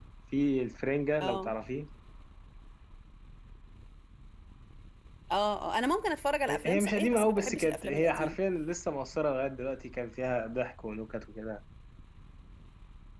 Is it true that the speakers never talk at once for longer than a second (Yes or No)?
No